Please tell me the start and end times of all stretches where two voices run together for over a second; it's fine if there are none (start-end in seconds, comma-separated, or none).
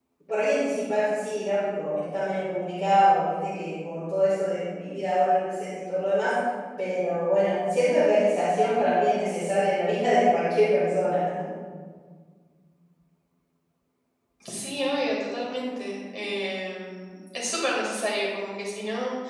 none